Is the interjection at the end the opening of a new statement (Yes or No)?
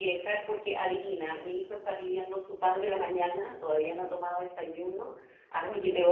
No